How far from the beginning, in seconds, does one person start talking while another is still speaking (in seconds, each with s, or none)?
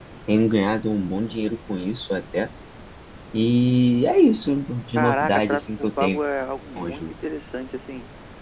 5.0 s